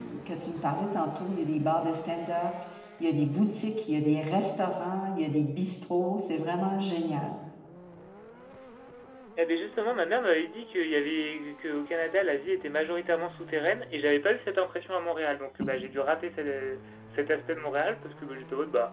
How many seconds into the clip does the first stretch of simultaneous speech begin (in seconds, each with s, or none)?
none